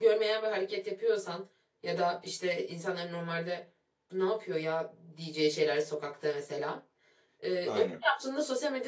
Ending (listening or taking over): listening